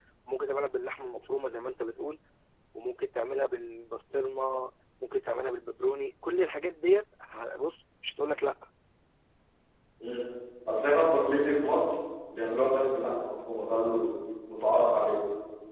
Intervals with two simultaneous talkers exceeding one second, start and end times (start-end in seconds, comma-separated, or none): none